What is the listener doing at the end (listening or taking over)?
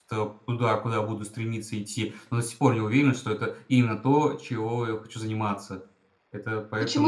taking over